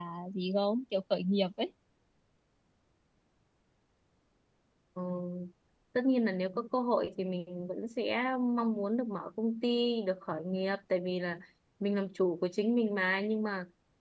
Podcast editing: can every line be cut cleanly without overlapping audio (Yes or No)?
Yes